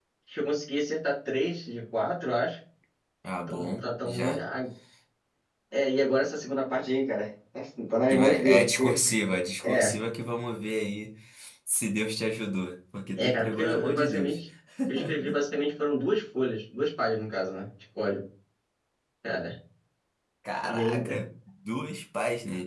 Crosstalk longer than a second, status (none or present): present